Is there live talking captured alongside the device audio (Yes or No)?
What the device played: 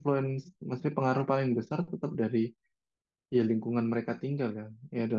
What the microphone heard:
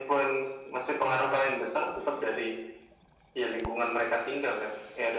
No